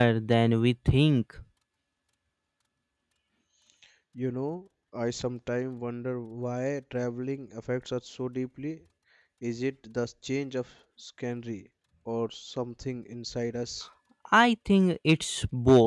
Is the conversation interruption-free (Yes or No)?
Yes